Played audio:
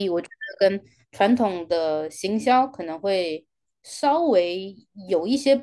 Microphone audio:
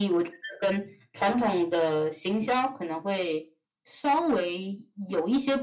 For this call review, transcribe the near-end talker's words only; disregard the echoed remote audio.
none

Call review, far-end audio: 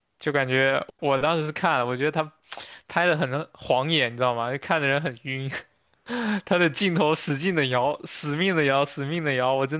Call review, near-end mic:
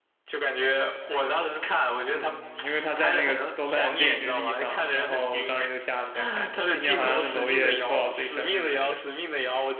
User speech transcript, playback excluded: 嗯，因为他在那个豆瓣电影日历上嘛，然后我当时就下了一下看一下，今年好像是娄烨多少岁生日来着？

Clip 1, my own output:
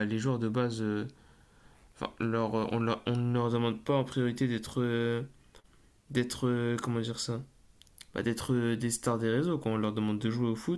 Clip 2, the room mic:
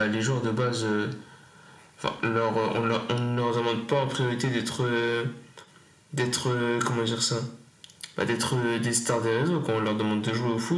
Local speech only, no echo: none

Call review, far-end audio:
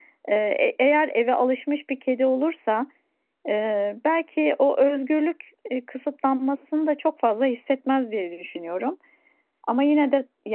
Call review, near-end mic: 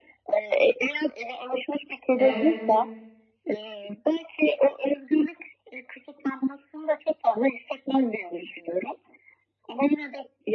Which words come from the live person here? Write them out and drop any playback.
evet.

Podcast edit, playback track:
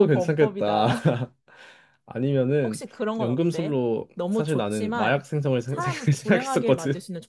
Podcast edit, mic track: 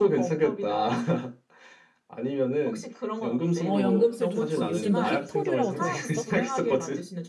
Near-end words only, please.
어, 연금술 좋지. 요즘 너 희토류라고 들어봤어?

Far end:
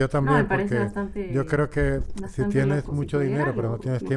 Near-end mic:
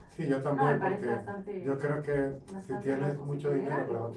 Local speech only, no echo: none

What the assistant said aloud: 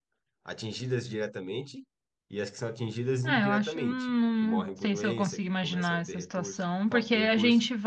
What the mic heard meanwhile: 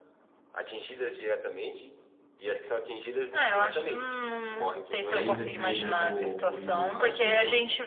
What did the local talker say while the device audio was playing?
ainda preservou o rio, a nascente

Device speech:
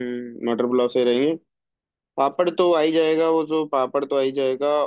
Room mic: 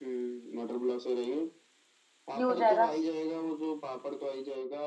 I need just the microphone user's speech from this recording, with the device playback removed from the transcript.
ये हो जाएगा

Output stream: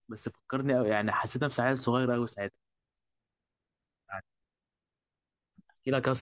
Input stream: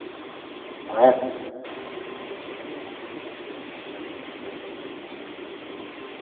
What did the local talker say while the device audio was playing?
تمام

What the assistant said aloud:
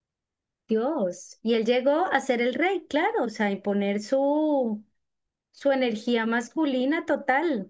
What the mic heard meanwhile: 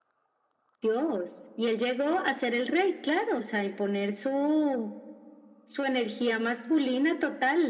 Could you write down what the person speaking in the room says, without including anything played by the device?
none

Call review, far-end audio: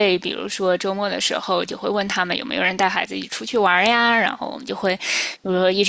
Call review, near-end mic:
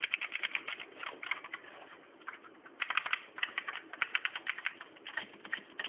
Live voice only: none

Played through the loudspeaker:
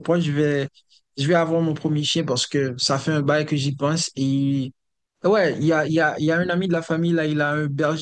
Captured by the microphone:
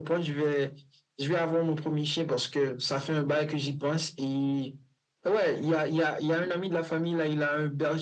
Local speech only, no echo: none

